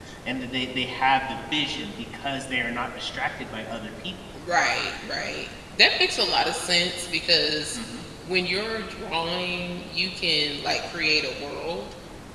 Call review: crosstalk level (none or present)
none